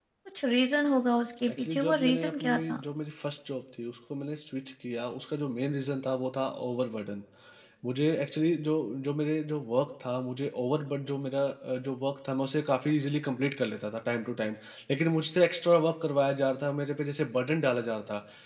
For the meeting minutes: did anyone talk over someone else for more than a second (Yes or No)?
Yes